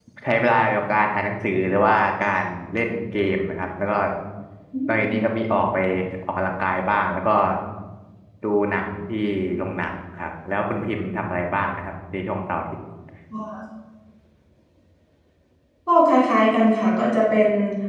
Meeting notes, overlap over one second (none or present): none